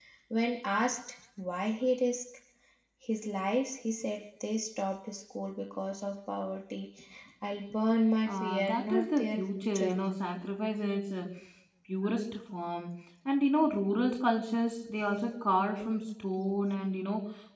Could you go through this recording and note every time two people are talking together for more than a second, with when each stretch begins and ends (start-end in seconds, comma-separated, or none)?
8.2-10.0